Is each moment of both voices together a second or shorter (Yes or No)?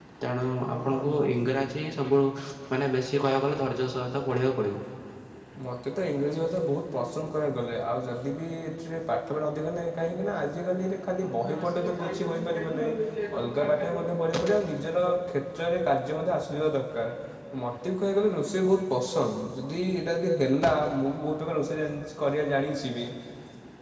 No